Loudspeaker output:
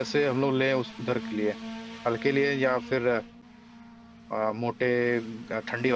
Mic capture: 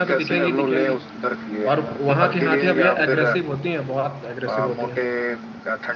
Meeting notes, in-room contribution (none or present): present